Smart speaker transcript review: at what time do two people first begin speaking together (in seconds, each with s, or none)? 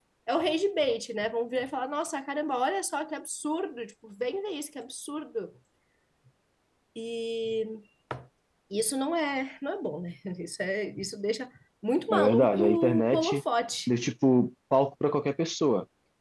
12.1 s